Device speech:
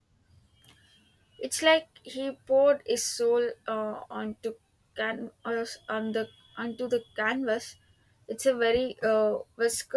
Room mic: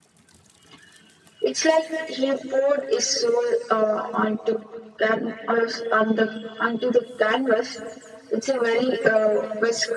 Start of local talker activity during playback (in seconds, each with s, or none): none